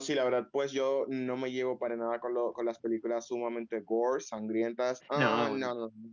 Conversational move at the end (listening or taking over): listening